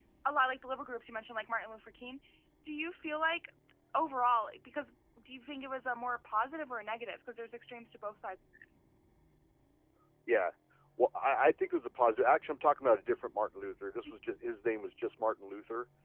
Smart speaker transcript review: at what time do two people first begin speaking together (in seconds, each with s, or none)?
none